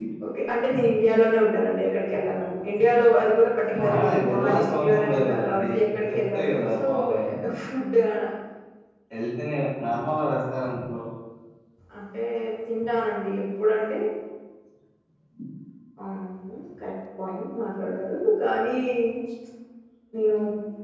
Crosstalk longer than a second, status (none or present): present